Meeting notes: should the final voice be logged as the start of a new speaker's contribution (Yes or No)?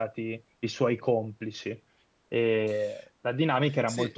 Yes